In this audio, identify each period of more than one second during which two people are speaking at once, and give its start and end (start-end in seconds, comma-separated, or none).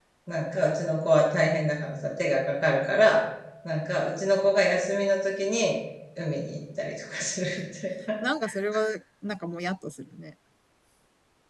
none